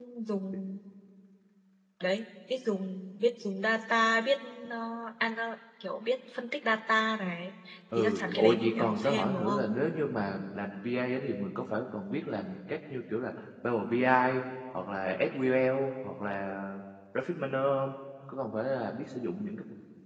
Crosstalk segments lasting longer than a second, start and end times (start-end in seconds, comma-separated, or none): 8.0-9.7